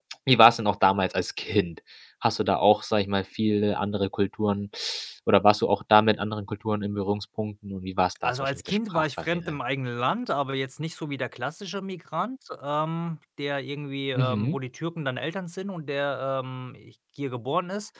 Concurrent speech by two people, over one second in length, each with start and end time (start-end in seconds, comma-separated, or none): 8.2-9.6